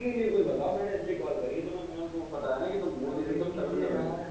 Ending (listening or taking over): taking over